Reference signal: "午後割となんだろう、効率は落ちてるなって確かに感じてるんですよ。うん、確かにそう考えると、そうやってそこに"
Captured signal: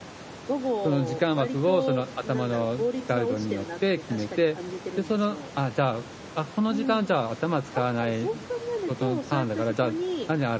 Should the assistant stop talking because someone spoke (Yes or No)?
Yes